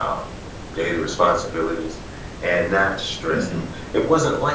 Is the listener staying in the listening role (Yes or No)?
Yes